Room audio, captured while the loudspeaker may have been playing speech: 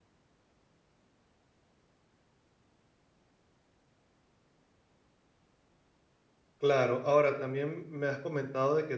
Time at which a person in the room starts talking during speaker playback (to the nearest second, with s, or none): 7 s